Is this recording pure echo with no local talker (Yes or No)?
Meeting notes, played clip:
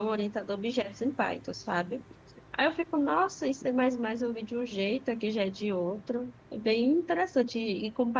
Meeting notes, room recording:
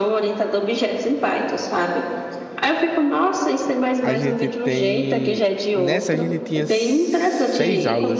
No